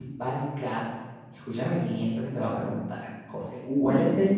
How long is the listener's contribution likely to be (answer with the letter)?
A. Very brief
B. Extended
A